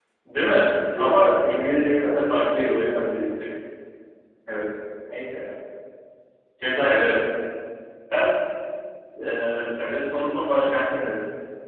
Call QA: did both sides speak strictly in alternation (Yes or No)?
No